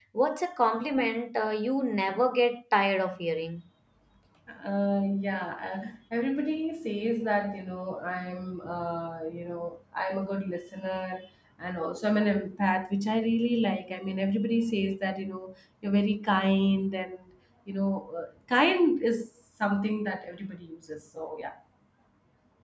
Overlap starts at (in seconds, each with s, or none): none